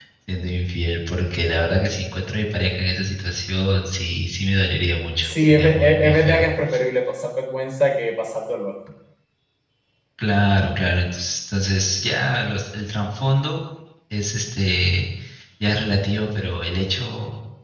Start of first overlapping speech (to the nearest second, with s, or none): 5 s